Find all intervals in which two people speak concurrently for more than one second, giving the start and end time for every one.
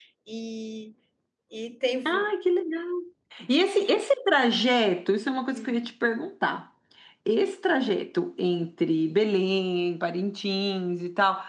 none

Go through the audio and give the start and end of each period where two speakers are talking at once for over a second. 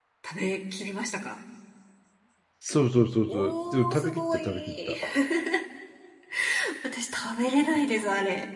3.3-5.0

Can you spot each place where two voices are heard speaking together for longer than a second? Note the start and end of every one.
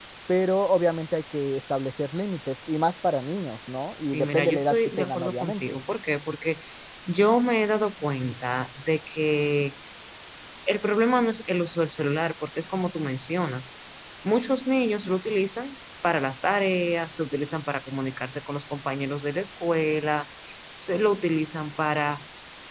4.0-5.8

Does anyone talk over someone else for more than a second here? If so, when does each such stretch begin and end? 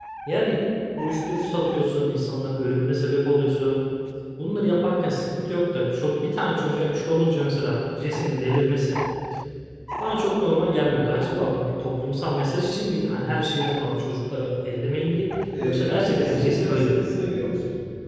15.6-17.1

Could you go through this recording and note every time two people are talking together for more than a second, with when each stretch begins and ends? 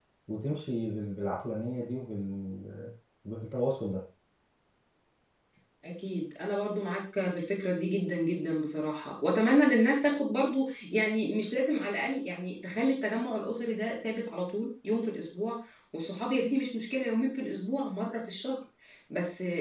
none

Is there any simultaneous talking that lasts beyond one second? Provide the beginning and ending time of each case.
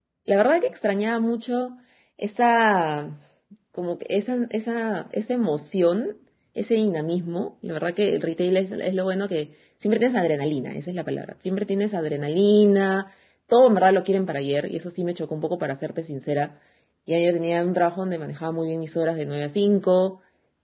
none

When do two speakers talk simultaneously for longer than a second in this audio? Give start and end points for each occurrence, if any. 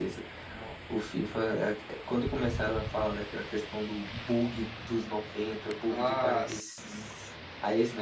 5.8-7.1

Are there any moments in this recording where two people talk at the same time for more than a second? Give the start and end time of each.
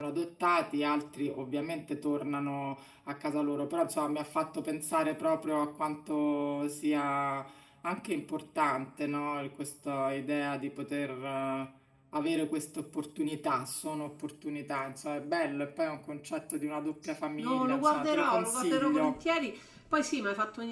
17.4-19.2

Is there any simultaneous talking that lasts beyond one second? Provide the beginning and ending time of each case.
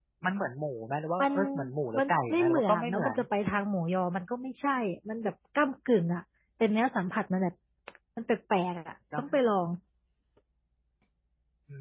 2.0-3.2

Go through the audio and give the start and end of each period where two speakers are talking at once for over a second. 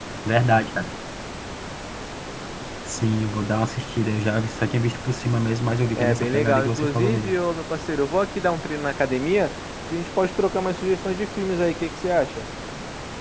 6.0-7.4

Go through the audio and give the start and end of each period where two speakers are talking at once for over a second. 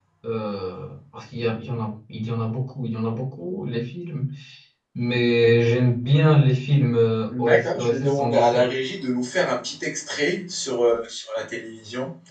7.3-8.7

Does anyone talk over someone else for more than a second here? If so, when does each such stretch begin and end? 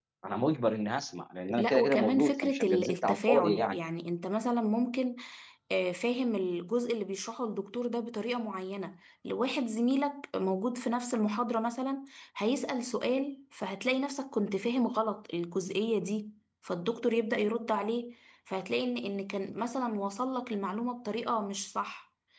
1.6-3.8

